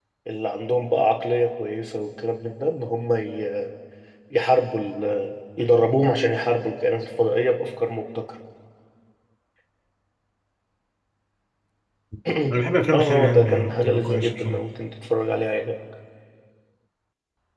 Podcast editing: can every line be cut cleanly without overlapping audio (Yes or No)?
No